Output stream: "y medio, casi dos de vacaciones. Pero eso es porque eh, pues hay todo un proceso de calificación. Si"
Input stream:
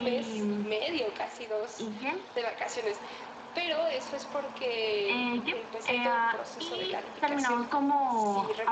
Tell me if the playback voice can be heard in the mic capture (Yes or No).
Yes